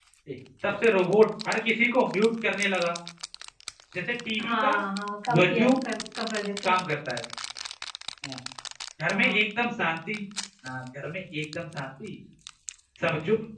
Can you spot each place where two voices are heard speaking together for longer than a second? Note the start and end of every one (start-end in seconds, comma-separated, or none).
none